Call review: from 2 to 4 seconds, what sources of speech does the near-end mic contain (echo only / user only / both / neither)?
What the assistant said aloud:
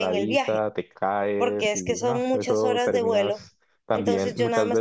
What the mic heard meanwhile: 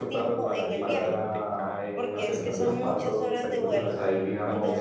both